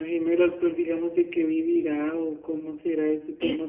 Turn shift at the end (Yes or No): Yes